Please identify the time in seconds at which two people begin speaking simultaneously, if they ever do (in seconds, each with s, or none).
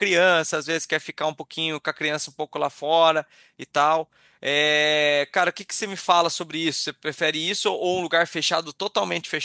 none